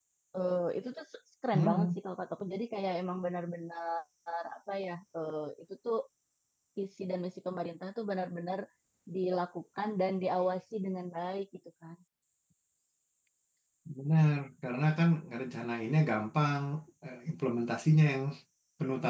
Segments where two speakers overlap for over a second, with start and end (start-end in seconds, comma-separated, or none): none